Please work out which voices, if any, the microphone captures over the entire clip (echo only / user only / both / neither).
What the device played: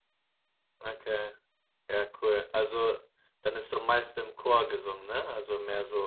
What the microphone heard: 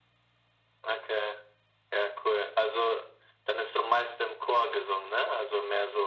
echo only